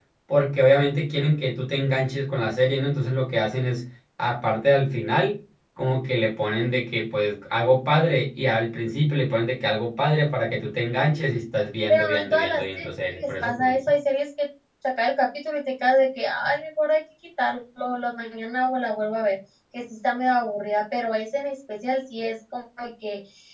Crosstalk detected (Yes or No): Yes